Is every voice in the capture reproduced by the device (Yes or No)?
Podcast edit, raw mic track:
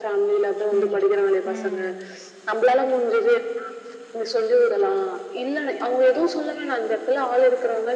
No